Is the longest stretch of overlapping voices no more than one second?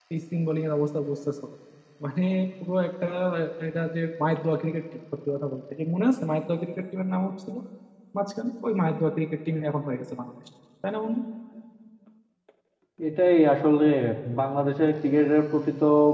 Yes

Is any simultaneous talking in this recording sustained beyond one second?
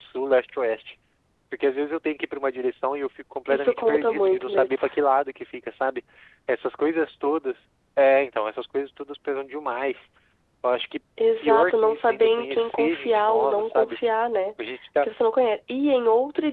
Yes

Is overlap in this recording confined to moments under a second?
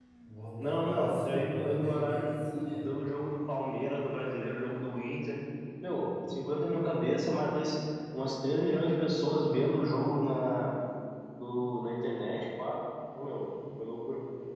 No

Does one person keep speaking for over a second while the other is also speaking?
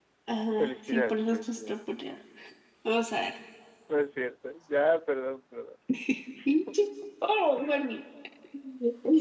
Yes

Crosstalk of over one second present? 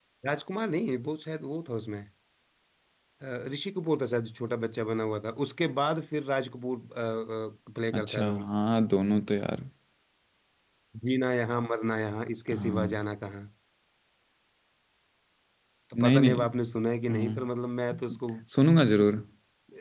No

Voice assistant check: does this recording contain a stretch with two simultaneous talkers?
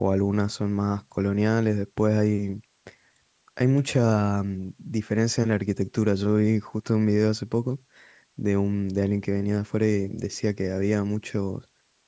No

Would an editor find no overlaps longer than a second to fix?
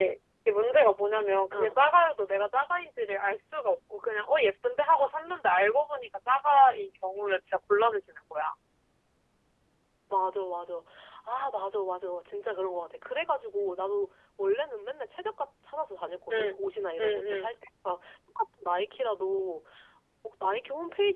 Yes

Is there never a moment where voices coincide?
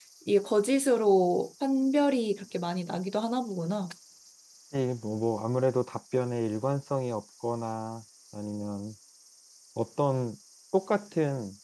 Yes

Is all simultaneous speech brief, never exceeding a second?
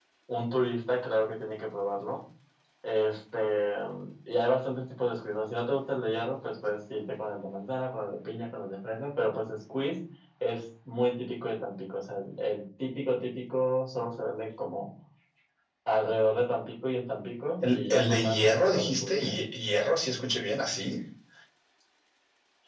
No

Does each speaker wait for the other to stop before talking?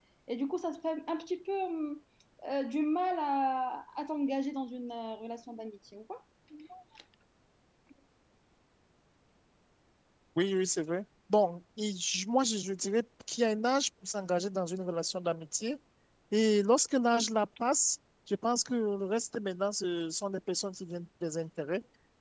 Yes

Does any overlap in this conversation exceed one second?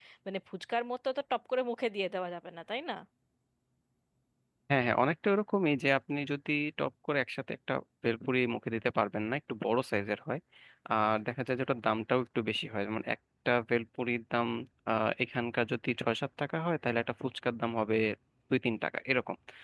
No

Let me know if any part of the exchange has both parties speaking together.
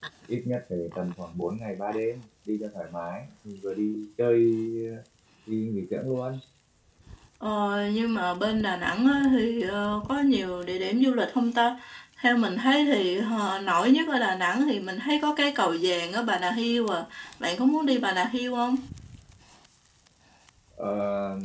No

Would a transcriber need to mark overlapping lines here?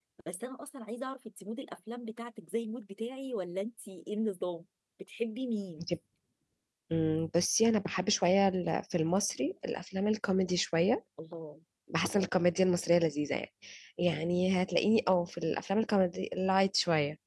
No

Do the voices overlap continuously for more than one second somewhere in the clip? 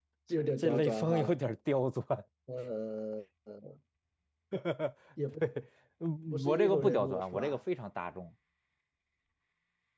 Yes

